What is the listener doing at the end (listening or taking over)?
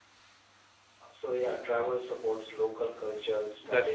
listening